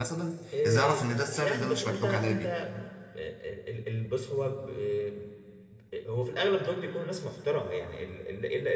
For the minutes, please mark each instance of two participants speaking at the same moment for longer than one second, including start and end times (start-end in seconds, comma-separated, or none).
0.6-2.5